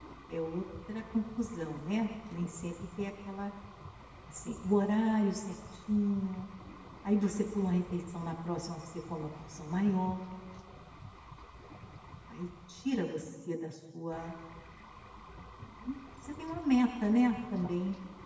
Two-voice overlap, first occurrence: none

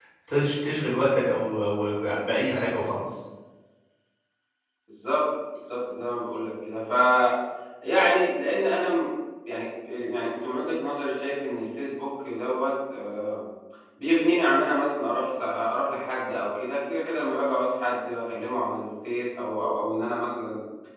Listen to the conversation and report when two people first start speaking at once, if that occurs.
none

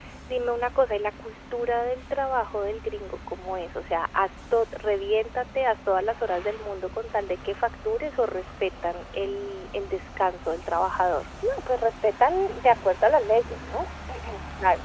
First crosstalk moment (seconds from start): none

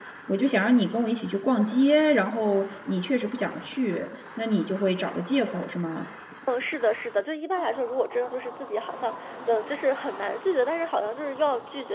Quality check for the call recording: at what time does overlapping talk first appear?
none

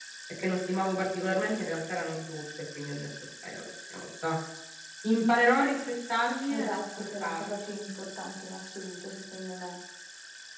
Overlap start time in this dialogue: 6.5 s

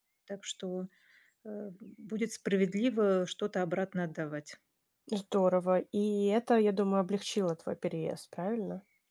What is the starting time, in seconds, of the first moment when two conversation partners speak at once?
none

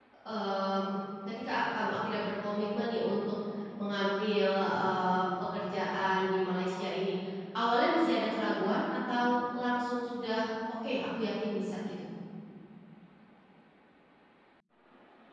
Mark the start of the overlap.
none

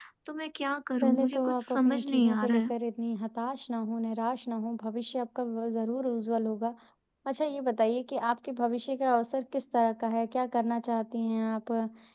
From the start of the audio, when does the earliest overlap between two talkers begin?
1.0 s

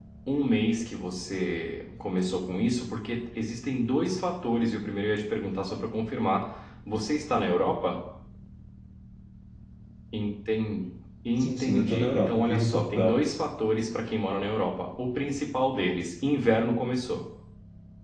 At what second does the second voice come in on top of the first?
11.4 s

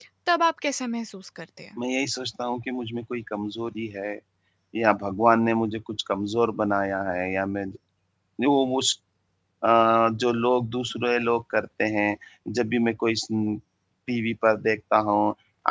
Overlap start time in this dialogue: none

